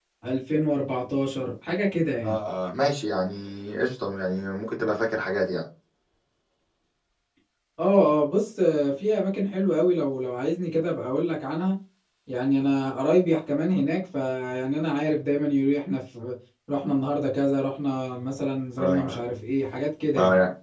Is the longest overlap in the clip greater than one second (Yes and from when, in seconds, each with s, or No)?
No